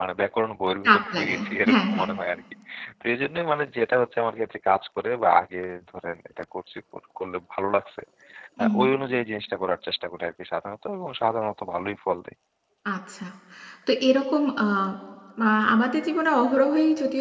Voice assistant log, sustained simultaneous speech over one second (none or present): present